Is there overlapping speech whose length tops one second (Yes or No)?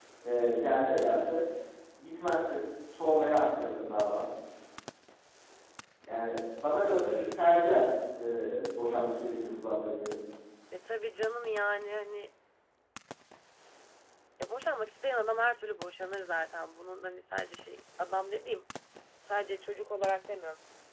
No